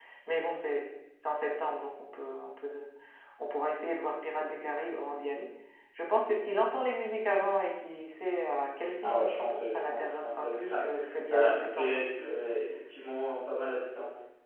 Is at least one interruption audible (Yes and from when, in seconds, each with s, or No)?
Yes, from 9.0 s